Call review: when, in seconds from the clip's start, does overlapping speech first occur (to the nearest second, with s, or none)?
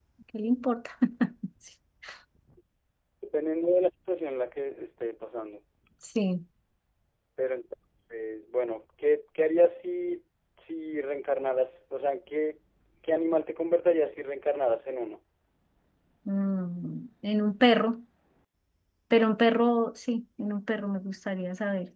none